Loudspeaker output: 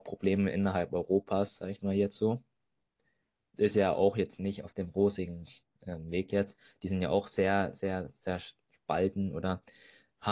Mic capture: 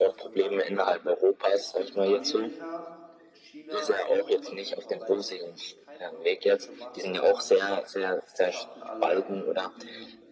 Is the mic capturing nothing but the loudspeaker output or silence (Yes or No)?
No